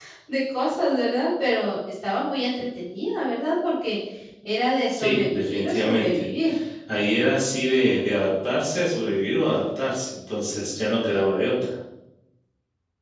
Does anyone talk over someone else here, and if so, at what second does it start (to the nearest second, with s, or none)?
5 s